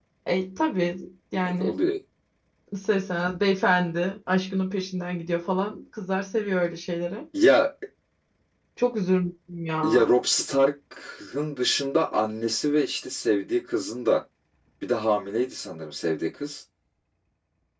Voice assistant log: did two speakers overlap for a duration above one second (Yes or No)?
No